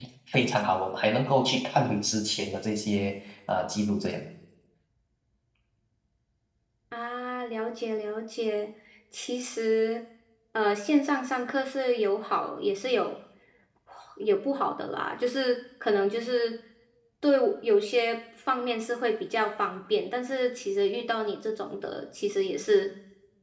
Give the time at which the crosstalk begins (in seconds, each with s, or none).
none